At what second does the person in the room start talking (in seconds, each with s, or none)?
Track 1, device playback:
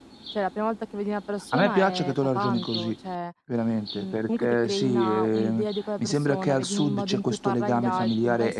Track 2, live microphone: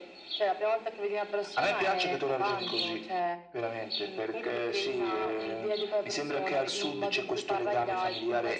none